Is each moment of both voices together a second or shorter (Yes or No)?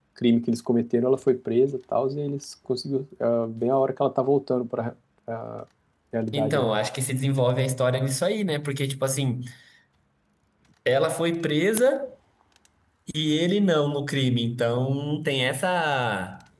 Yes